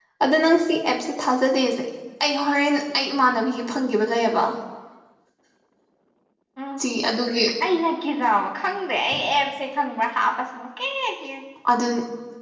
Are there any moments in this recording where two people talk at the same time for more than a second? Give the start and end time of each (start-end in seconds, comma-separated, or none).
none